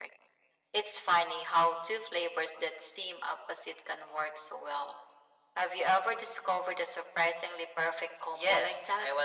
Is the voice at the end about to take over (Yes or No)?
Yes